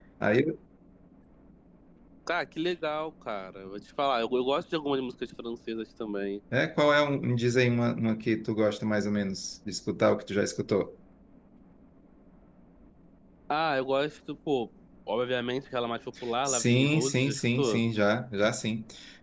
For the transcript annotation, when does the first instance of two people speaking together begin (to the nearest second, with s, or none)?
16 s